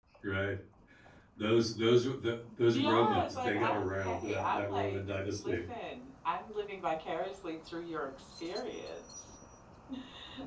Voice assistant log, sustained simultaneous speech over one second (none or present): present